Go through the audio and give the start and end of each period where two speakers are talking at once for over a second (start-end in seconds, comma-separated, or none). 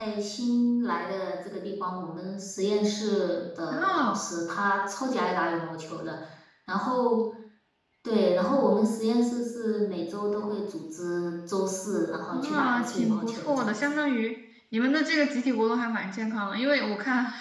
12.3-13.9